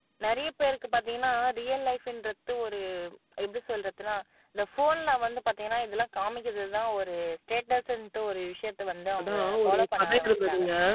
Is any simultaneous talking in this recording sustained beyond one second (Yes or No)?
Yes